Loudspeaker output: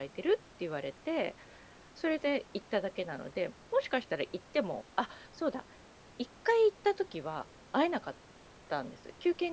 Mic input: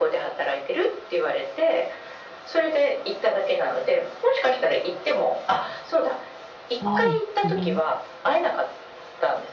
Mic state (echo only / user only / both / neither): both